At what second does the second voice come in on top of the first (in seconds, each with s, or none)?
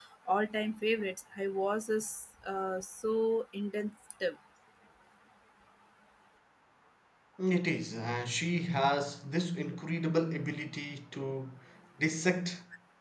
none